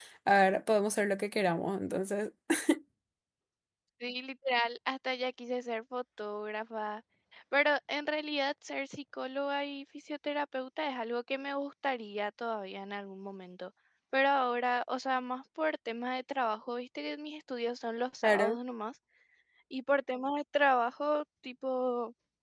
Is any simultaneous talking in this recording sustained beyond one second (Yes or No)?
No